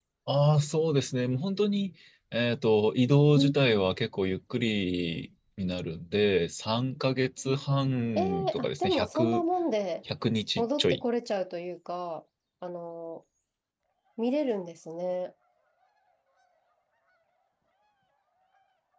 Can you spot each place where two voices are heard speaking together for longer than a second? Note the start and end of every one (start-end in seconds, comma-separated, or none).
8.2-9.4